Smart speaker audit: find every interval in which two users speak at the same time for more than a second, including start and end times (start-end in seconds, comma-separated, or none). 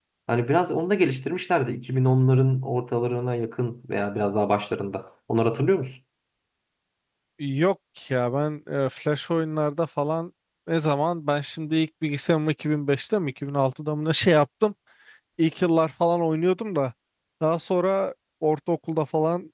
none